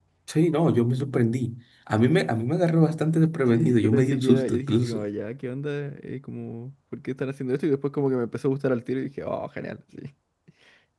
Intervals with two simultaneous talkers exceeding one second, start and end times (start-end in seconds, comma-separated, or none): 3.5-5.0